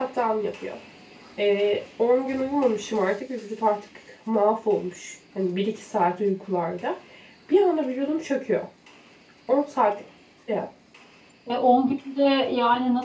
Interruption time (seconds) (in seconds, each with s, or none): none